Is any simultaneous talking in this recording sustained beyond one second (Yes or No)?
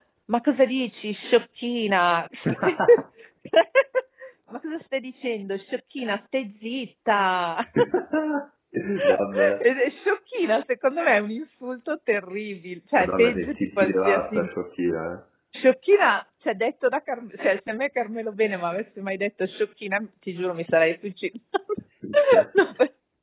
Yes